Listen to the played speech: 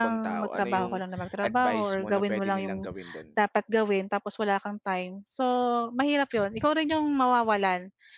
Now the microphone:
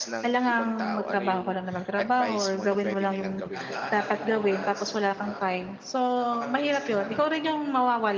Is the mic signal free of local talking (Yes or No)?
No